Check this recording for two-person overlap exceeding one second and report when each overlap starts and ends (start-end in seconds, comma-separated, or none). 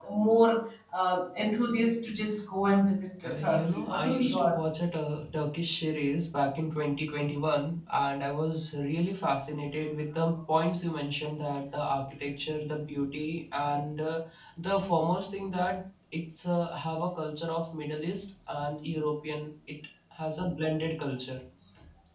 3.2-4.6